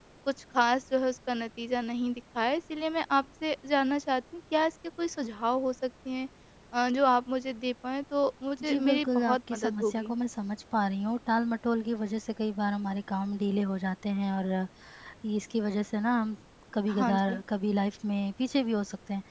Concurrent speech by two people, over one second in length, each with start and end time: 8.7-10.1

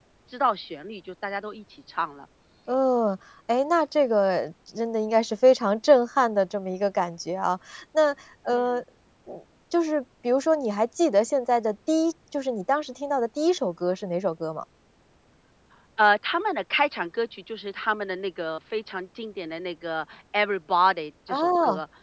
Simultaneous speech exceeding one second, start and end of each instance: none

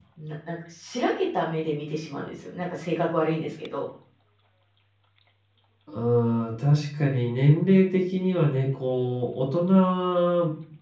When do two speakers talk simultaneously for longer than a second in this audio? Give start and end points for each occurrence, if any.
none

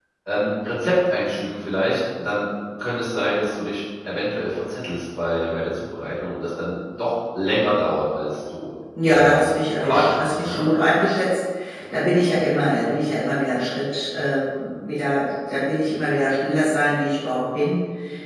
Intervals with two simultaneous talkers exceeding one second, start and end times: 9.1-10.6

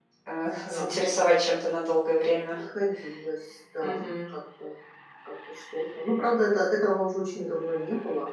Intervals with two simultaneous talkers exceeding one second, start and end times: none

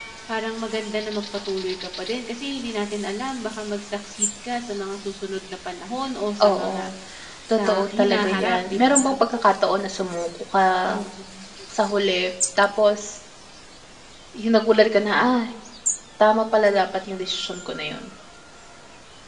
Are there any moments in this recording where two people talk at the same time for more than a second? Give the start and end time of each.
7.6-9.1

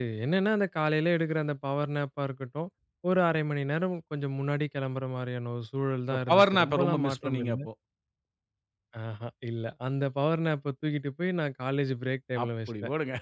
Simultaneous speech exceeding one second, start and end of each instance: 6.1-7.6

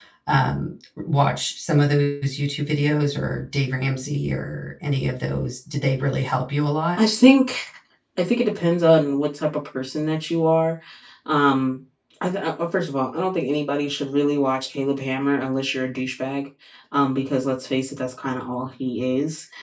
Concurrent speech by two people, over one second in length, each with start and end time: none

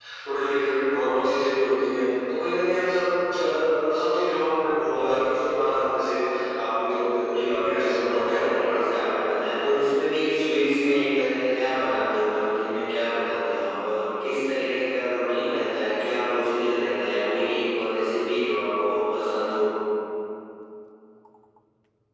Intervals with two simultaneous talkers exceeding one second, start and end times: 7.3-9.0

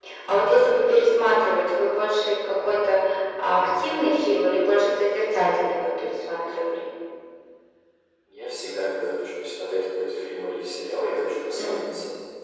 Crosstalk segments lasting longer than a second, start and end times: none

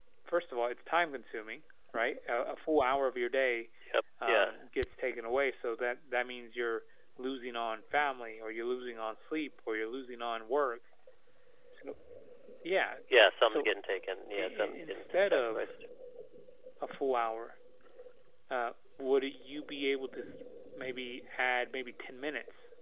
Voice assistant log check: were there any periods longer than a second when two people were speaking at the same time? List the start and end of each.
14.4-15.7

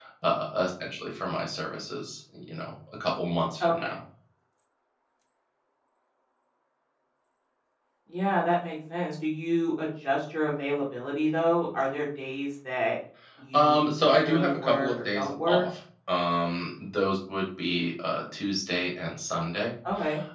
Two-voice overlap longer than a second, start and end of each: 13.5-15.6

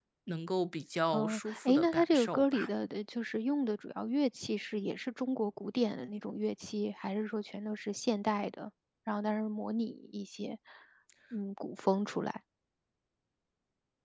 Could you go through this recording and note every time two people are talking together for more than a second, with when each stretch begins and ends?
1.1-2.7

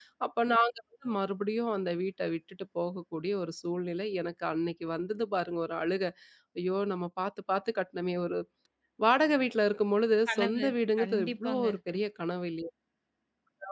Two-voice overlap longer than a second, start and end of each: 10.3-11.8

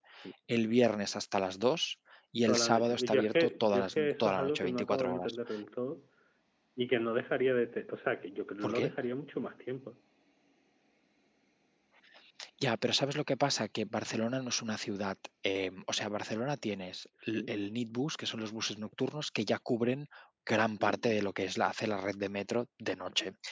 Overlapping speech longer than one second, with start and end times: 2.5-5.4

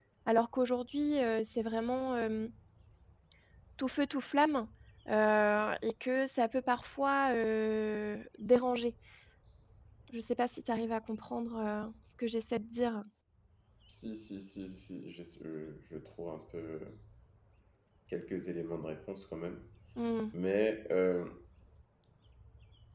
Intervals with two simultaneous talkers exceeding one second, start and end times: none

